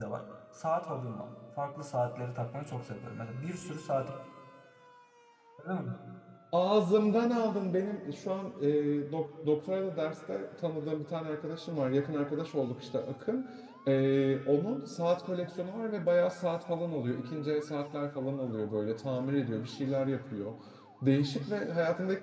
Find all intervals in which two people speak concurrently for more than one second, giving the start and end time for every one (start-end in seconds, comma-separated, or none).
none